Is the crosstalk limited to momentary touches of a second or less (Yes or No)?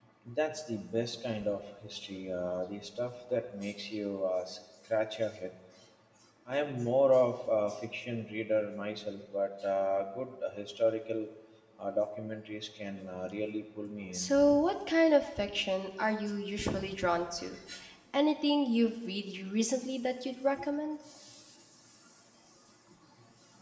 Yes